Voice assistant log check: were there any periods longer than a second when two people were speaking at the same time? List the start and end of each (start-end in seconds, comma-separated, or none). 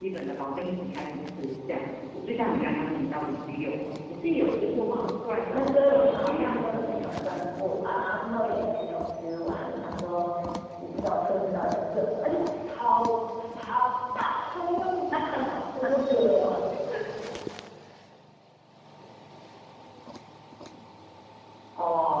5.5-7.3